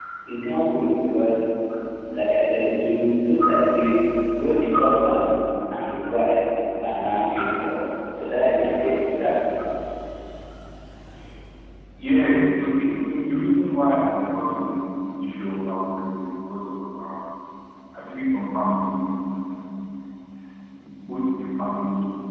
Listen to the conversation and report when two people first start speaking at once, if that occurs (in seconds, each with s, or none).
none